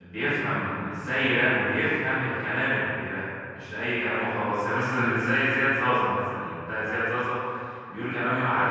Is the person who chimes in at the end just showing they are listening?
Yes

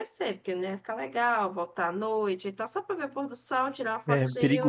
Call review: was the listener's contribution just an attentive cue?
No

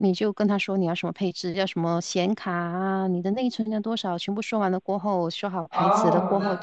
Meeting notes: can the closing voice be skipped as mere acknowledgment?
No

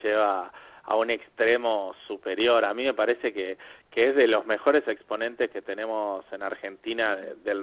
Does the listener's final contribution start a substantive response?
No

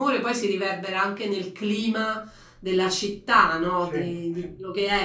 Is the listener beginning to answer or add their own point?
No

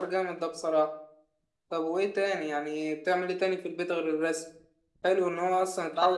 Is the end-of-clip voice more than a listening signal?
No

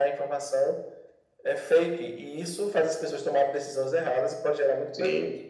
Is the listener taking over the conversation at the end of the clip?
Yes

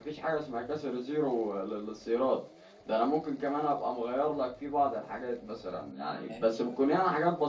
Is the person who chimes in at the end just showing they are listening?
Yes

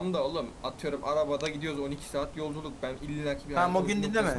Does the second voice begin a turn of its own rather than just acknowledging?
Yes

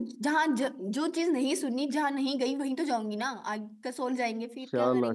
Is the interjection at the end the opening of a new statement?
Yes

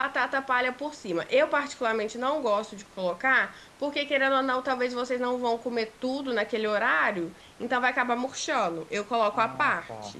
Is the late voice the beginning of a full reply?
Yes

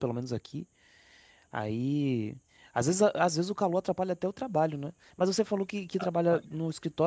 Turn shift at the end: No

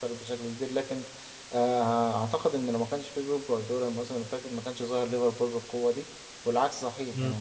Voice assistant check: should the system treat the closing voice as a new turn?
Yes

